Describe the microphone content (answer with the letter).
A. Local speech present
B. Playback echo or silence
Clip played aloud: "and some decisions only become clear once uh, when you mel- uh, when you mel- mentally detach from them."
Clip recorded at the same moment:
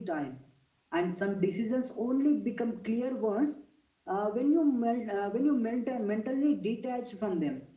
B